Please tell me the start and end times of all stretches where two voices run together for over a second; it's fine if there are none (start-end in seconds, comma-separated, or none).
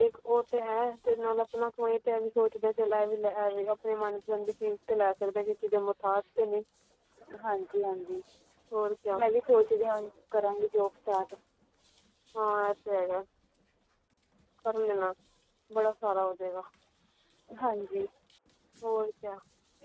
none